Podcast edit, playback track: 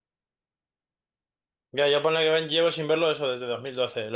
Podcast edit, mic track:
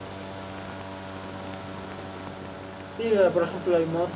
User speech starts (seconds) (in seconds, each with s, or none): 3.0 s